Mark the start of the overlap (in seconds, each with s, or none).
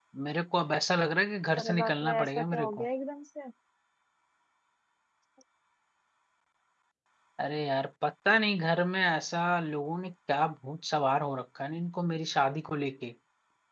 1.6 s